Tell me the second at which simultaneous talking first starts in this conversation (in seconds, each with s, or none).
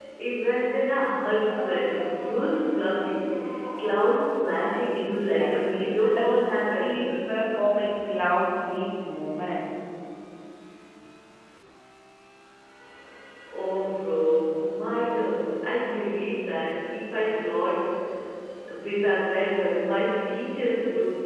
5.0 s